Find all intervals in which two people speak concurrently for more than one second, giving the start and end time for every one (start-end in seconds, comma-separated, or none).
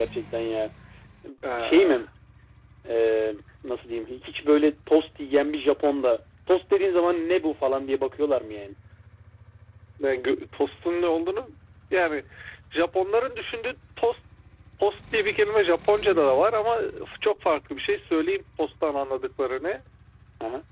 none